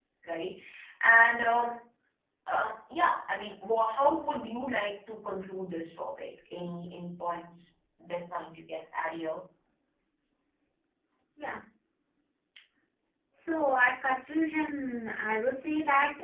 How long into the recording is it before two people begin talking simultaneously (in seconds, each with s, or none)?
none